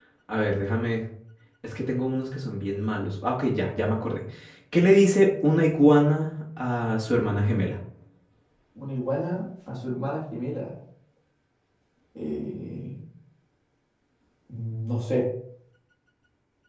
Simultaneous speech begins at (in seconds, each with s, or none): none